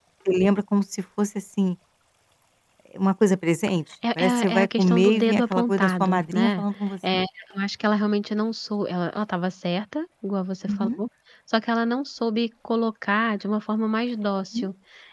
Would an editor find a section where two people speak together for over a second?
Yes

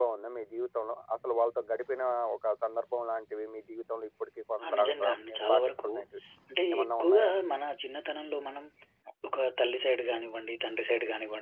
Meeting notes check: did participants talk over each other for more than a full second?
Yes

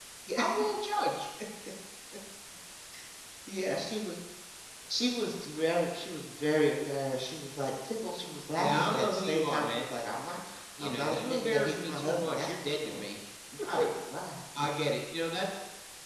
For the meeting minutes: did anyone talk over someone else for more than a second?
Yes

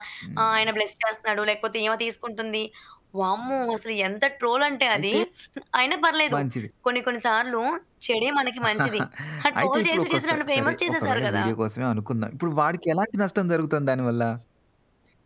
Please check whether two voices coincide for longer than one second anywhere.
Yes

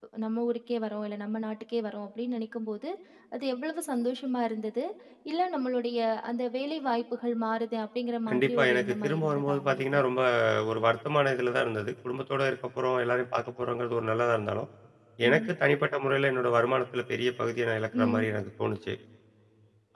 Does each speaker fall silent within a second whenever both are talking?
No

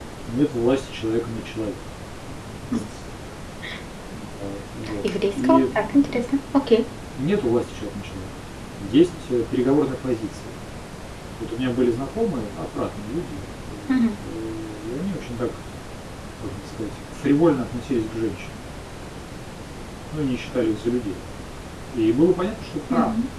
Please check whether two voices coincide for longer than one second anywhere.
Yes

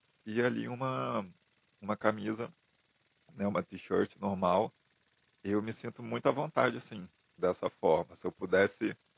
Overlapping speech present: No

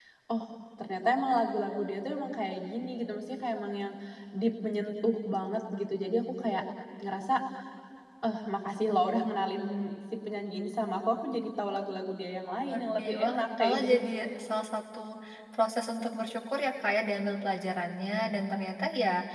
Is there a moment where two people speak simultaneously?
Yes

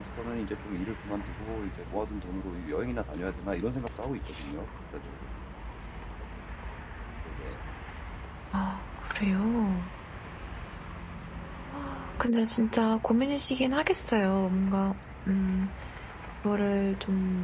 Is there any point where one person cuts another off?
No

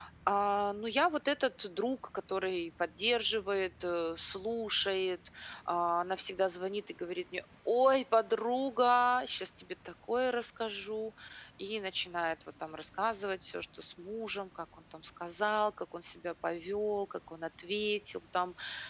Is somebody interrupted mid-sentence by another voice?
No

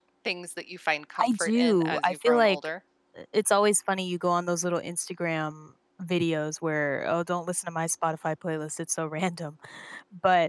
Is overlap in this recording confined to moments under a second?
No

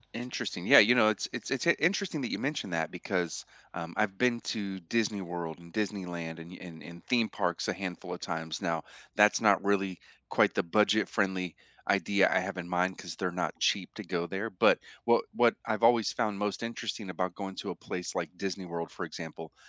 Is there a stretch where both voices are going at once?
No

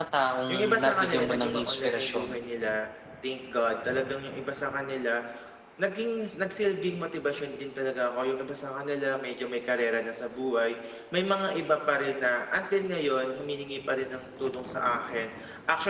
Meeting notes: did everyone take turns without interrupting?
No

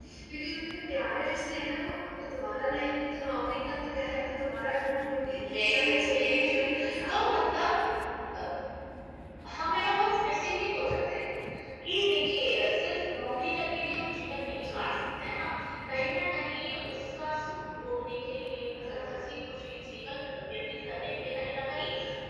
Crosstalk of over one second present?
Yes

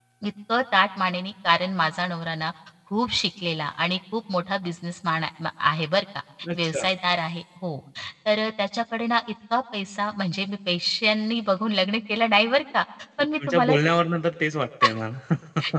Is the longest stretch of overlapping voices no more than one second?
Yes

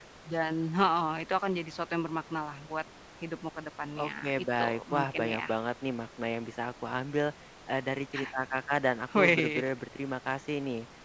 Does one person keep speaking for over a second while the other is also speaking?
Yes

